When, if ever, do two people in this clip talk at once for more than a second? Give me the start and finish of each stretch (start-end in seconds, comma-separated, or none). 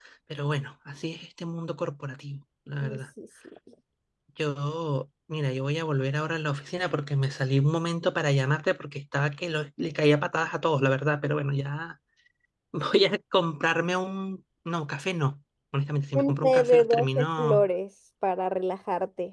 16.2-17.6